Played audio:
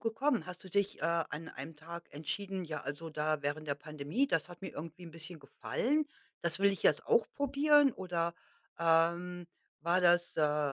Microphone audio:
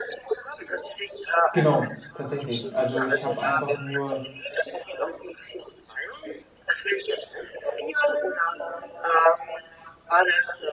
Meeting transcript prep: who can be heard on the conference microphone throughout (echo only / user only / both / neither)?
both